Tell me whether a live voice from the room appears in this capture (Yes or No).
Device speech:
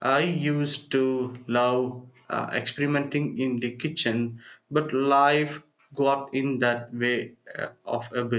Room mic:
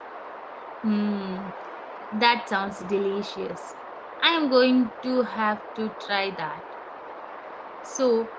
Yes